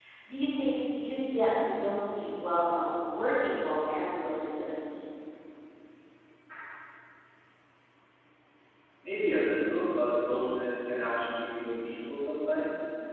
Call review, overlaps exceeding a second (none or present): none